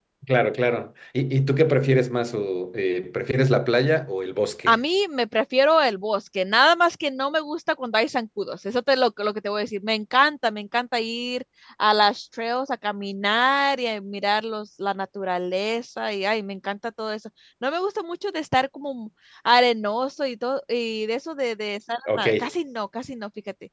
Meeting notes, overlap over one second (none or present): none